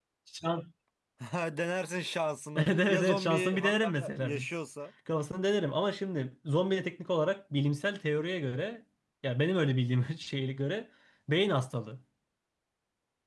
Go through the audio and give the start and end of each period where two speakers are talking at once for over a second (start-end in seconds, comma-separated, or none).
2.5-4.5